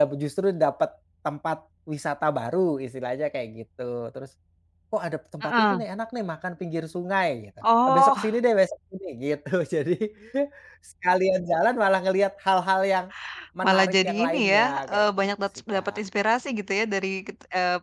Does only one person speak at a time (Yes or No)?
No